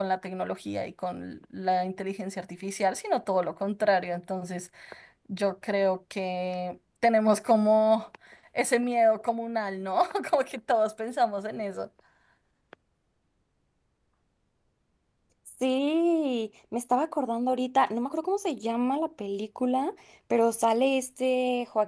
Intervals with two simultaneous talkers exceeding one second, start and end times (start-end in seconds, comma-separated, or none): none